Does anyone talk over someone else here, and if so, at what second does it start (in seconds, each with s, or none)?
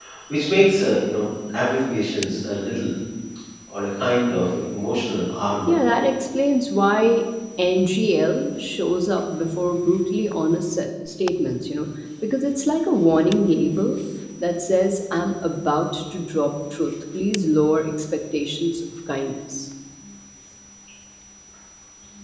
none